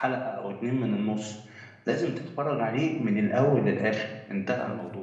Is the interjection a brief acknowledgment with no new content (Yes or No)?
No